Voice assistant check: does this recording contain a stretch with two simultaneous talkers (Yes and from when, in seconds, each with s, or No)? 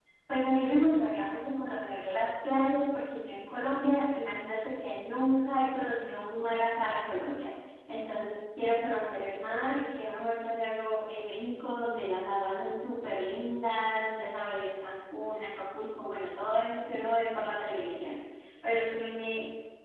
No